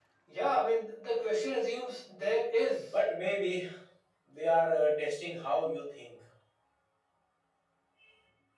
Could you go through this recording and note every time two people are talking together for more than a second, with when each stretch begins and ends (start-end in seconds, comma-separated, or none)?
none